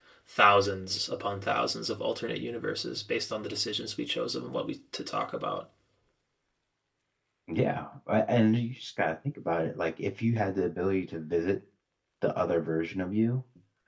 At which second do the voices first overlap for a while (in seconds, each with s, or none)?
none